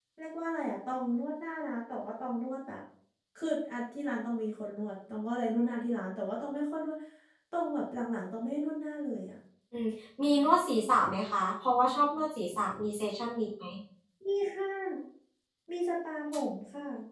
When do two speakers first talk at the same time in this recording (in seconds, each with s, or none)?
none